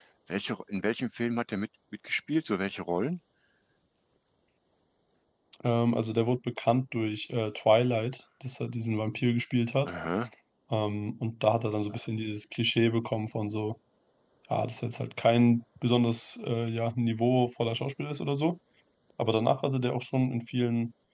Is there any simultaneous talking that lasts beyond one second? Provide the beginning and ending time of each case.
none

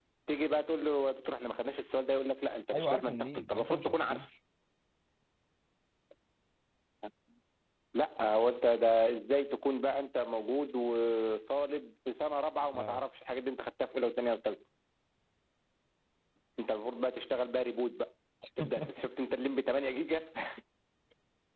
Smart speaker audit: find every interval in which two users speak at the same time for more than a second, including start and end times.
2.7-4.3

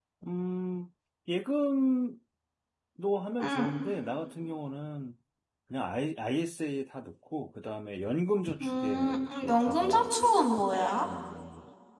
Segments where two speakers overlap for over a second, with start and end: 8.6-10.1

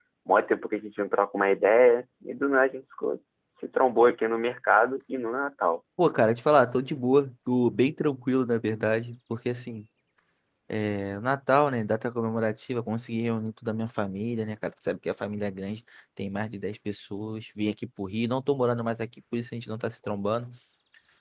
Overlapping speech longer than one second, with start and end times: none

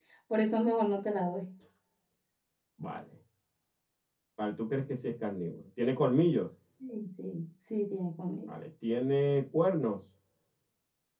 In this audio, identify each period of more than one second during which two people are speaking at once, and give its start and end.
none

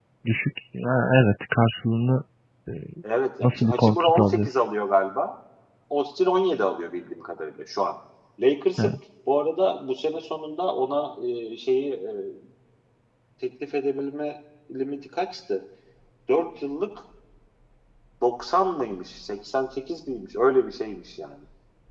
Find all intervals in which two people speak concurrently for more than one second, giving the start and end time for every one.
3.4-4.7

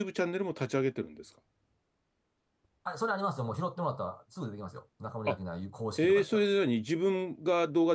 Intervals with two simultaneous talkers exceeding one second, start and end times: none

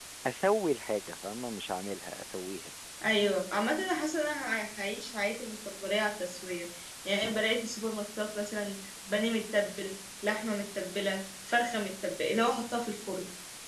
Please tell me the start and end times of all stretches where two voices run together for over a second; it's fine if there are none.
none

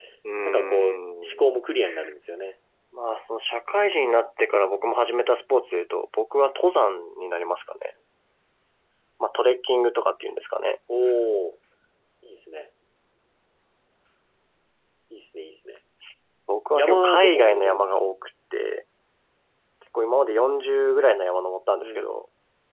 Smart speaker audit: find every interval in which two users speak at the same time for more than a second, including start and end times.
16.8-18.1

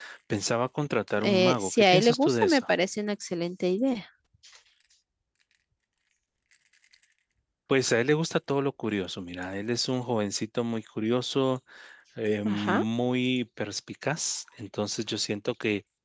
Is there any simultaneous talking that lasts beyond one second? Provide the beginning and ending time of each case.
1.2-2.6

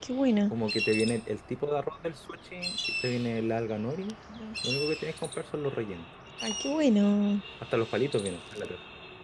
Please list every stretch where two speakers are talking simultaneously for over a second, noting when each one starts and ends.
none

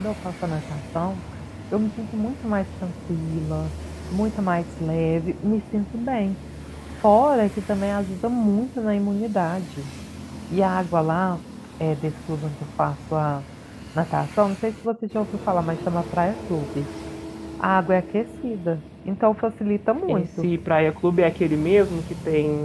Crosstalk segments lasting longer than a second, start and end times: none

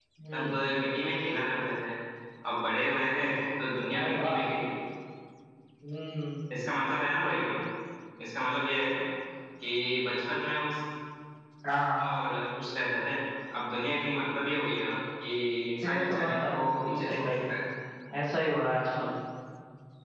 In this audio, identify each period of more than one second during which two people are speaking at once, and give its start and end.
15.8-17.3

